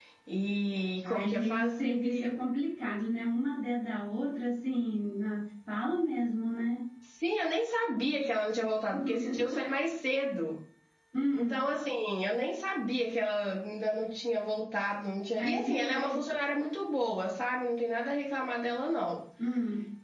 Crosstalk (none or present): present